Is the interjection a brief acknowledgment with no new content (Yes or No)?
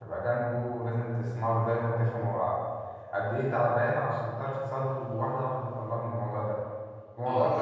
No